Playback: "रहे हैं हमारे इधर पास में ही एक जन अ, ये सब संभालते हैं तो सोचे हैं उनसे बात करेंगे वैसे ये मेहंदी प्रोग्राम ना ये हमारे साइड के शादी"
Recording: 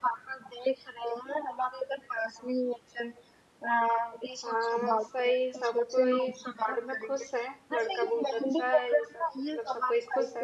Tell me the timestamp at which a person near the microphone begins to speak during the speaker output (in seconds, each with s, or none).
4.4 s